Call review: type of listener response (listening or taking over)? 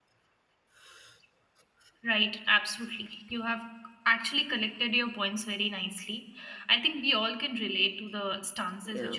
taking over